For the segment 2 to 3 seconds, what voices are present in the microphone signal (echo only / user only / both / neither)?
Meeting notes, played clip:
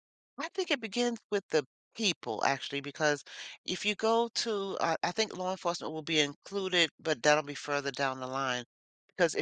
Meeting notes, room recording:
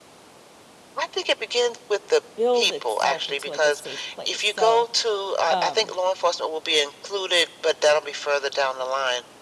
both